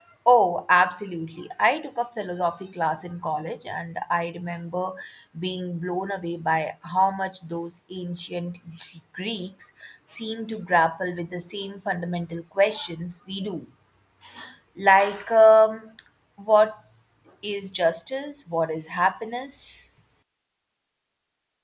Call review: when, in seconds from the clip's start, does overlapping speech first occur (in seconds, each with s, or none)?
none